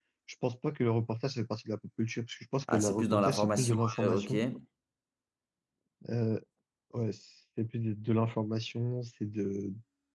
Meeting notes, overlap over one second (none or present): present